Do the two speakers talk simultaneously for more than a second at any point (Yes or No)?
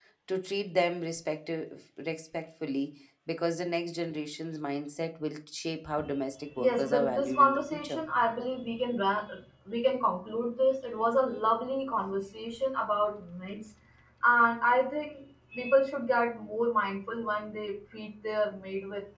Yes